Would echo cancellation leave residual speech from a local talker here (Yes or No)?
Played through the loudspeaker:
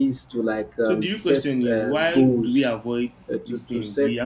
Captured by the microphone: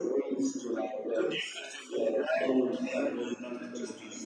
Yes